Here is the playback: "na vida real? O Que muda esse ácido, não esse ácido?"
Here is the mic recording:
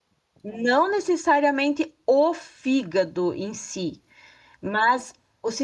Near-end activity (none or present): present